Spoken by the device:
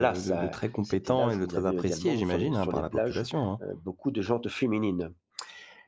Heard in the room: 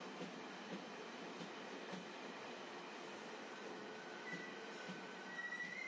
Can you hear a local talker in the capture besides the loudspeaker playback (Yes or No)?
No